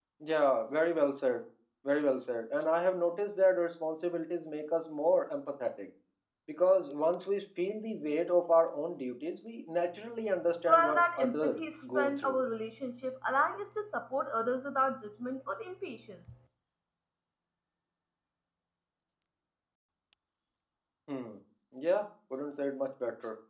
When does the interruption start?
11 s

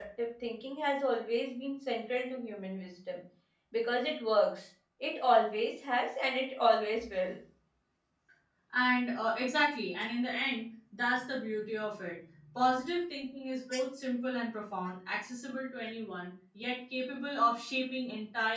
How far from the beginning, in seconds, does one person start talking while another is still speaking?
none

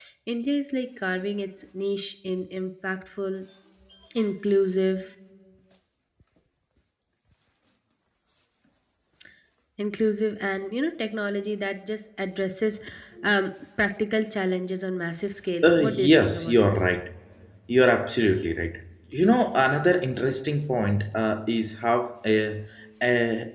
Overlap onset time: 16 s

